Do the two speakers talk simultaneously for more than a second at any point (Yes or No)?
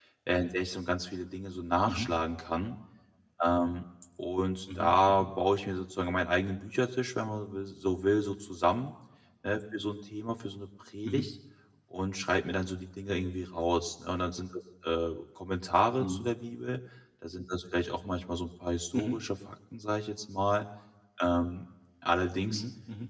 No